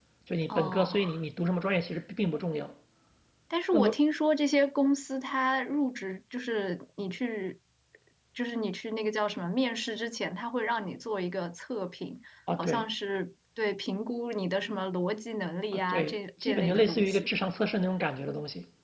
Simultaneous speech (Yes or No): Yes